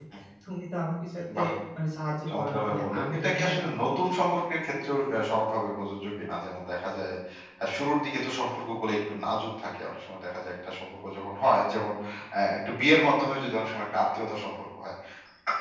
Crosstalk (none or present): present